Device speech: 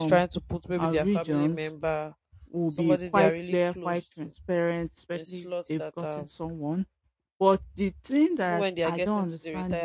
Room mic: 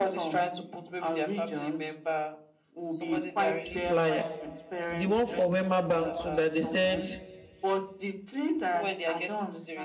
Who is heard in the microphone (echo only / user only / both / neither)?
both